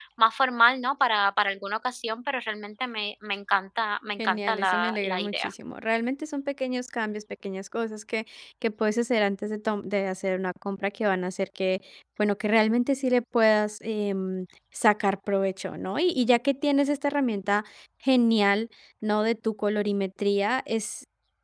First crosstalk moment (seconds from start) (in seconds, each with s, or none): 4.2 s